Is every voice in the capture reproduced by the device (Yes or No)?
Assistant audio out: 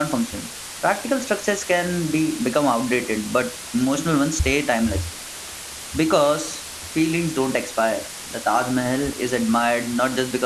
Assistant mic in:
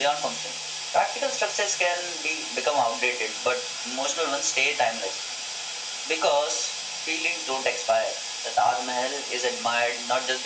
Yes